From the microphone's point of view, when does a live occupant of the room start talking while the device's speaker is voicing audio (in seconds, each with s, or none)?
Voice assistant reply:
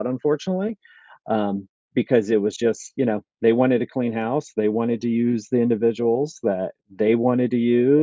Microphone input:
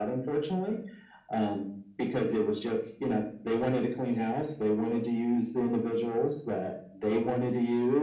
none